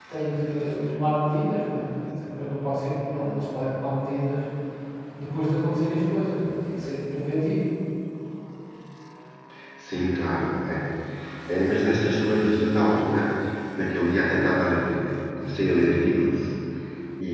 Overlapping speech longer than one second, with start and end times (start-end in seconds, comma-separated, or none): none